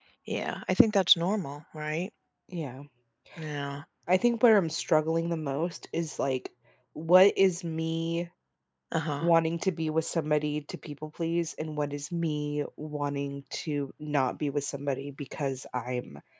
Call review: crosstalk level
none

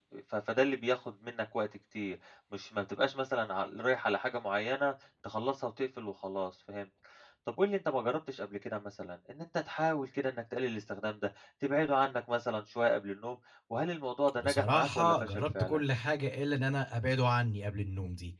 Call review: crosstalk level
present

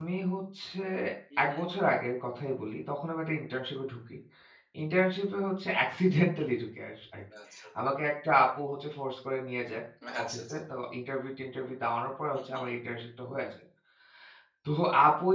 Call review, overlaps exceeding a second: none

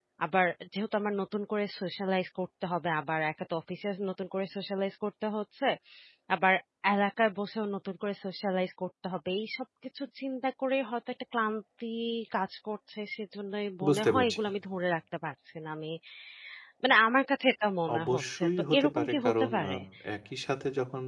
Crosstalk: present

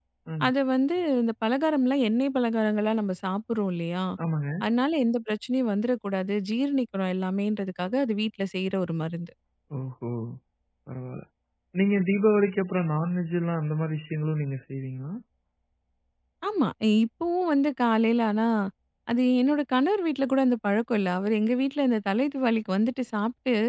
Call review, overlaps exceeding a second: none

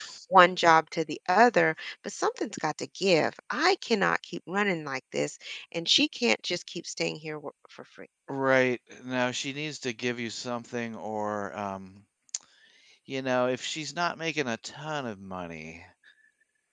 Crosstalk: none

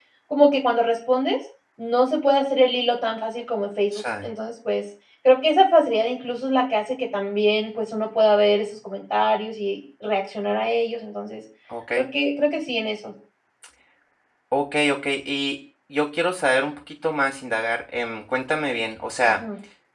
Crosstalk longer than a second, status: none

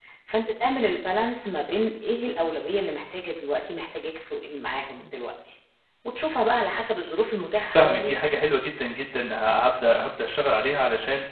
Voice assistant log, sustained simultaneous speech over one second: none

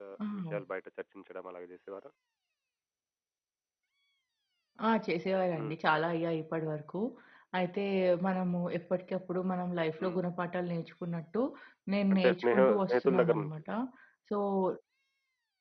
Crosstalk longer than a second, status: present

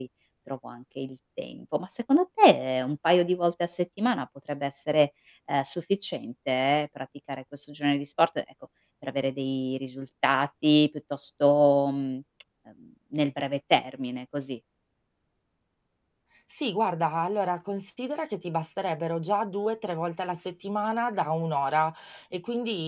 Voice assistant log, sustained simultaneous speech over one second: none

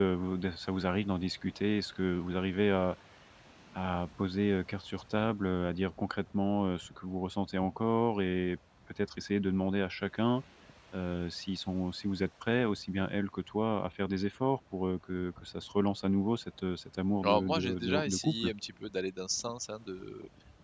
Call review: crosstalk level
present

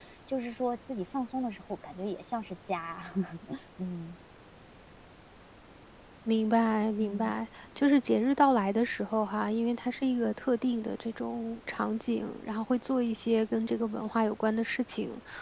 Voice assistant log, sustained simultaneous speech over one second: none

